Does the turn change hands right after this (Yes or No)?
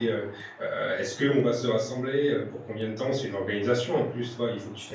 No